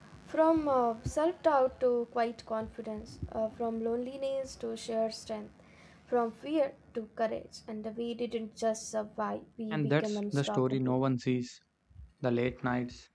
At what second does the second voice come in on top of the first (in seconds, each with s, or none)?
9.7 s